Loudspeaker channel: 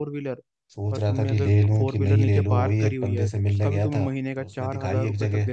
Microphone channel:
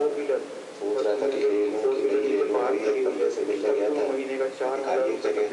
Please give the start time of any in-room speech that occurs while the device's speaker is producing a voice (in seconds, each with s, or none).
none